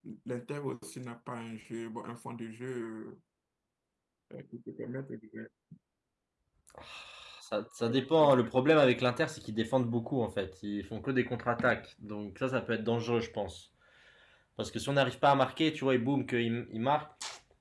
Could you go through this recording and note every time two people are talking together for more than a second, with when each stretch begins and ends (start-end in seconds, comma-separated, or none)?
none